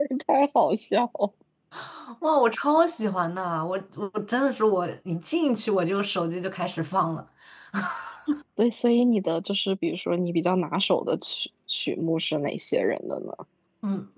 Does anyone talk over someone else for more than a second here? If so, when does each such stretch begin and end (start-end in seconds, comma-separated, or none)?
none